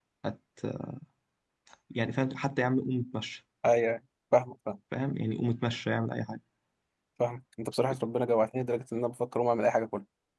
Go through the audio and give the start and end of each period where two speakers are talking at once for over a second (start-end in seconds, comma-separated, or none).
none